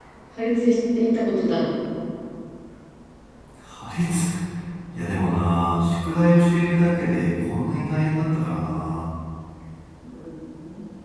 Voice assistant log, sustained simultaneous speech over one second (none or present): none